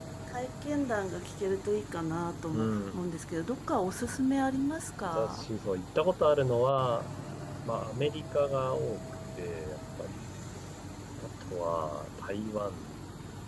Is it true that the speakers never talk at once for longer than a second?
Yes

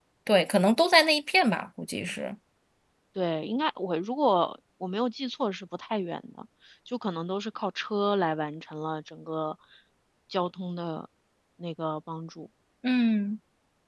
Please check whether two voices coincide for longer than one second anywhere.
No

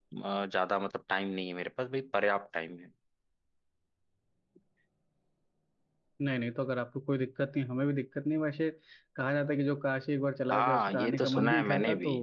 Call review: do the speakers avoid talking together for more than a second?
No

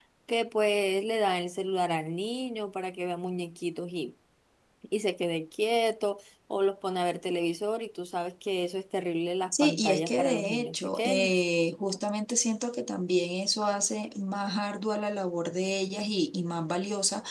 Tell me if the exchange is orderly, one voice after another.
No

